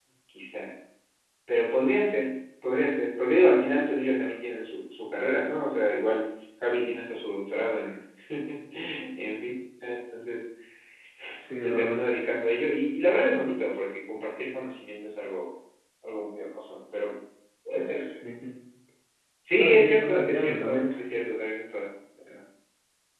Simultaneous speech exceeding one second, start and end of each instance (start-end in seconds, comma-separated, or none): 19.6-20.9